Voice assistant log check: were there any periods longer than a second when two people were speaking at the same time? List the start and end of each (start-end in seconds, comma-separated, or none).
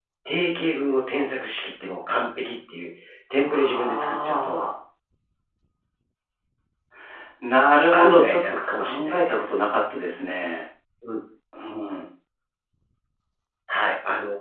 3.5-4.7, 7.9-9.4